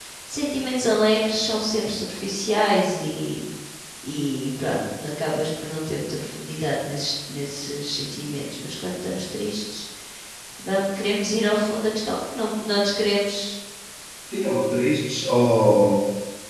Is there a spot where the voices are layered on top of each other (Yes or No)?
No